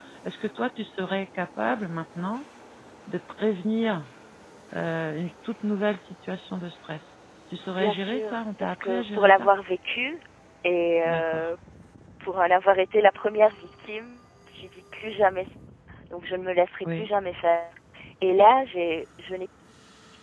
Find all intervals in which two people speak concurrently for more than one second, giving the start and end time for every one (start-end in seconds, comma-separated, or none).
7.7-9.5